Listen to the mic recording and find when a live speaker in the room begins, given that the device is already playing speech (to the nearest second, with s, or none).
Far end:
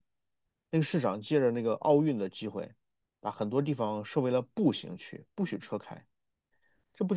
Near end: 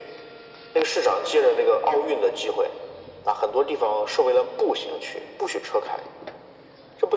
none